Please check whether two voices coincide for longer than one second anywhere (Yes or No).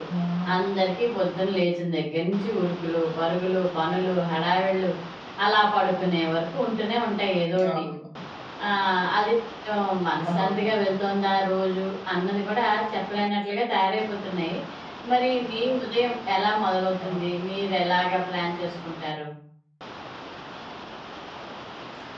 No